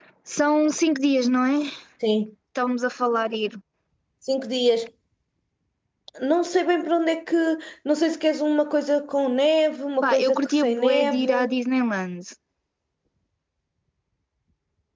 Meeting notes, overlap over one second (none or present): present